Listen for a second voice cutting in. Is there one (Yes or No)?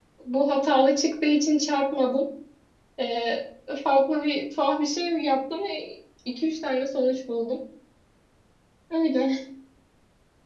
No